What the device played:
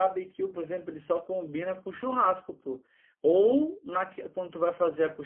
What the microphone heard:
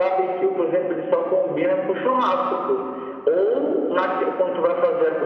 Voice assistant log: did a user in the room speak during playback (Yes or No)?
No